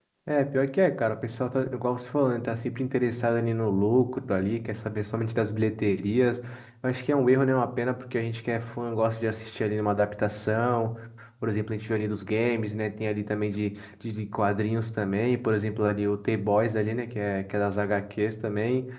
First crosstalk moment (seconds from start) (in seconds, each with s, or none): none